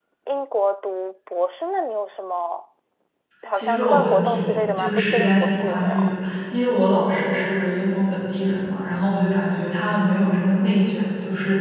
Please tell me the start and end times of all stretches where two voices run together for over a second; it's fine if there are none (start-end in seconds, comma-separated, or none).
3.5-6.1